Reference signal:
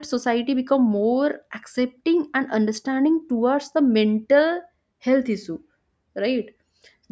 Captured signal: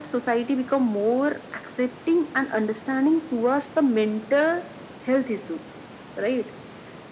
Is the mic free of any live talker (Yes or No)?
Yes